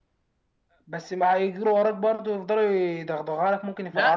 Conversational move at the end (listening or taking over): taking over